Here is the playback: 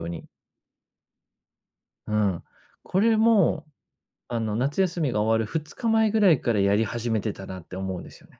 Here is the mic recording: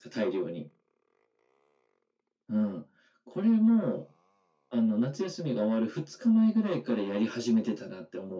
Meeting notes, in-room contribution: none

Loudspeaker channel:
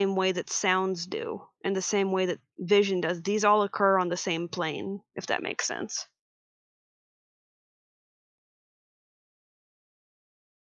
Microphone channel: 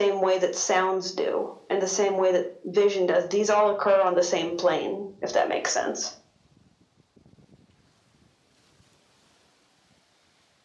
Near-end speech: none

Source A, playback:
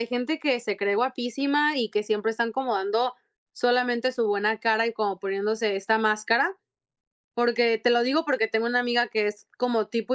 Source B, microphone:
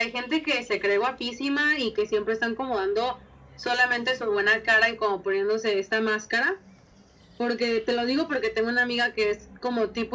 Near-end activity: none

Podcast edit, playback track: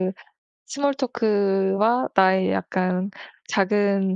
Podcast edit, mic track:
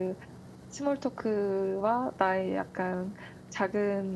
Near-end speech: none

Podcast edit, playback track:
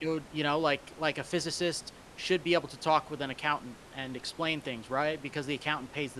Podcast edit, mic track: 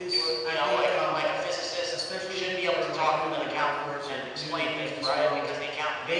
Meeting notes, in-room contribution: present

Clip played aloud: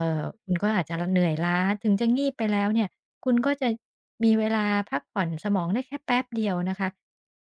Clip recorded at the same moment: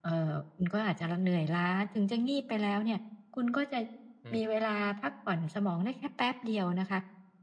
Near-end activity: present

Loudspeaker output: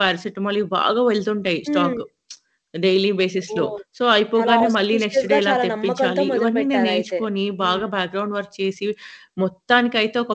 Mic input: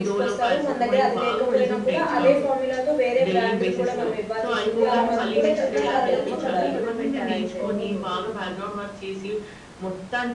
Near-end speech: present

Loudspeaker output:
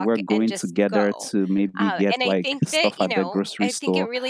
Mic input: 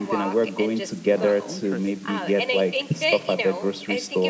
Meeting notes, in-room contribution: present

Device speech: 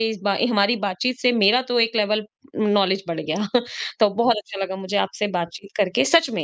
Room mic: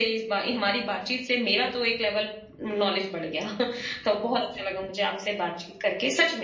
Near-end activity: none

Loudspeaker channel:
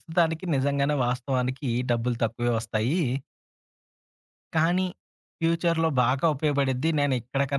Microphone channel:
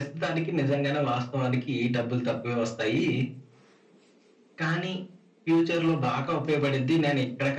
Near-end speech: none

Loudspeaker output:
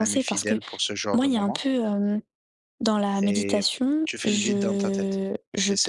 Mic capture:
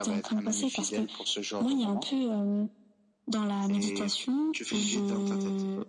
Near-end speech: none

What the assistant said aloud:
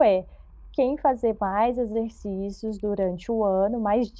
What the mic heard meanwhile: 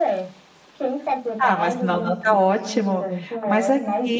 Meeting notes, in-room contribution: present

